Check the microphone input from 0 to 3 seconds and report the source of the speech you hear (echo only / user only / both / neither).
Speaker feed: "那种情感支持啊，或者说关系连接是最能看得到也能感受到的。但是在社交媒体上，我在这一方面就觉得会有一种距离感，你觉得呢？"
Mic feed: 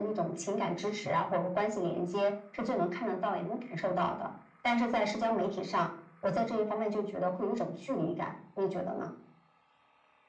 echo only